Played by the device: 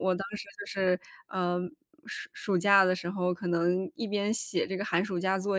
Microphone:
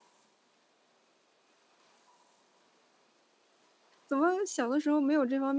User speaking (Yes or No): Yes